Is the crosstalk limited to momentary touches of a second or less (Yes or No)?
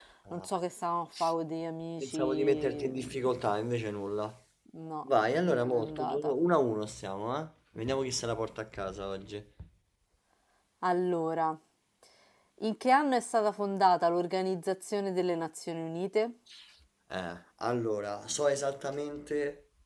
No